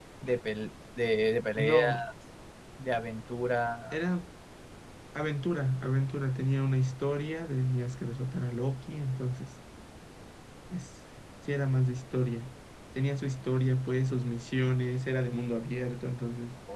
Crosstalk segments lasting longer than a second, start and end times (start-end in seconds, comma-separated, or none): none